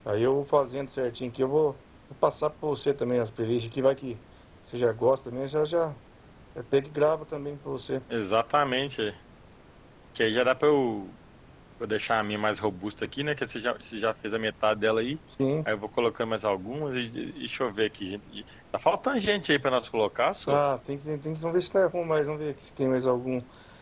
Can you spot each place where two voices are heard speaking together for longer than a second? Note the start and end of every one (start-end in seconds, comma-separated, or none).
none